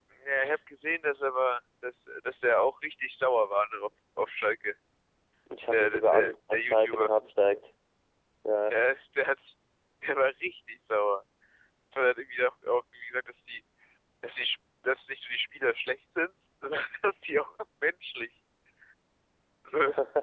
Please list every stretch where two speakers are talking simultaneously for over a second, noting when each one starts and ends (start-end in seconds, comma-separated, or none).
5.7-7.1